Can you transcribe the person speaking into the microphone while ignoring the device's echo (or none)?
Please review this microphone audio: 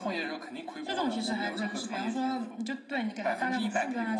none